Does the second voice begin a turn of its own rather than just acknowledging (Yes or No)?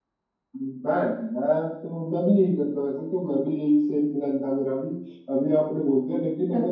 No